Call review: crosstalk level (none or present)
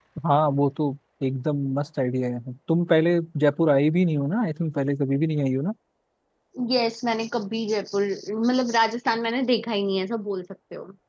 none